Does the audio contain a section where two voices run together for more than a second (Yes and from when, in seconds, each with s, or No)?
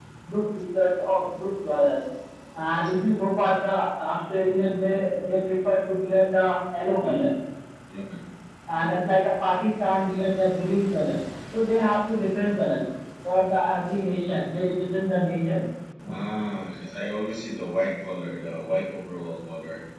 No